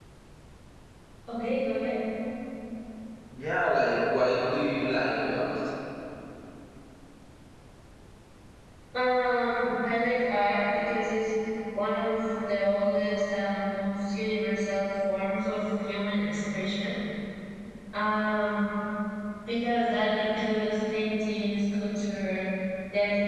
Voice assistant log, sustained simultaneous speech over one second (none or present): none